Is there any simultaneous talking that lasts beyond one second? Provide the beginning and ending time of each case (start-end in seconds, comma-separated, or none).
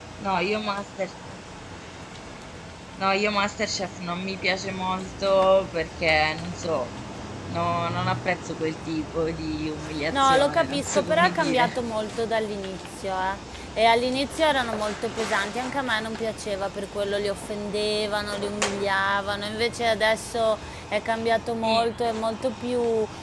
10.1-11.8